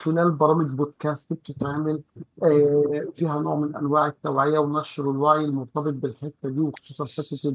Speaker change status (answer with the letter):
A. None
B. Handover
B